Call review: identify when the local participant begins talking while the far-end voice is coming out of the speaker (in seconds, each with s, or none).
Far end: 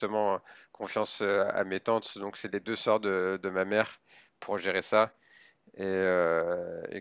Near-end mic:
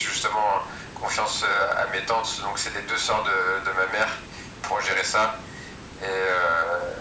none